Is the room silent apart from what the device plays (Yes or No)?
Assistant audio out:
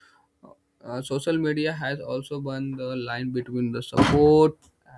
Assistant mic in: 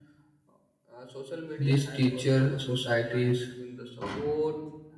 No